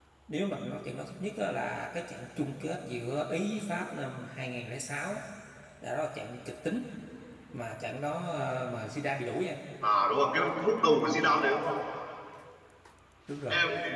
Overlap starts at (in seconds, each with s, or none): none